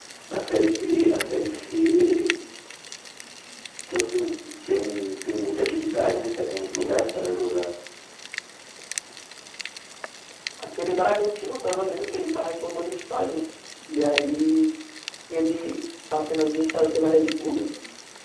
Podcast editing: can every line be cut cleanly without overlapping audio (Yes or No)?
Yes